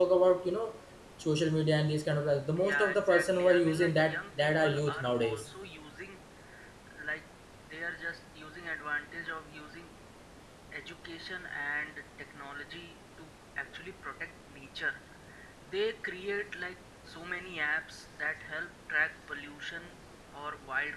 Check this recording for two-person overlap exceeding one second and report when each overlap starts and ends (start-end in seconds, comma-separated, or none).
2.7-5.5